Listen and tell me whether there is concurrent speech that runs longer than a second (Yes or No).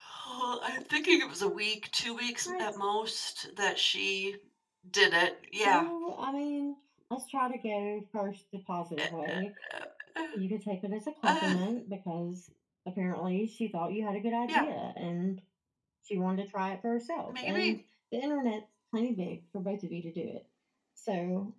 No